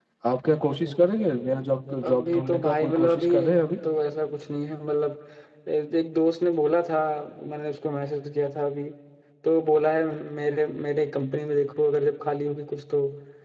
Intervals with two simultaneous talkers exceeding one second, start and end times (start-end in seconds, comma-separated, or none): 2.0-3.6